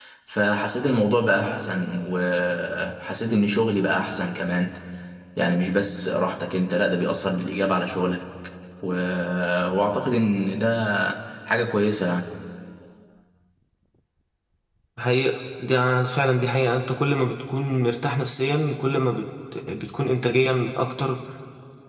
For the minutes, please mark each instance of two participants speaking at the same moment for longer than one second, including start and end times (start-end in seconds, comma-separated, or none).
none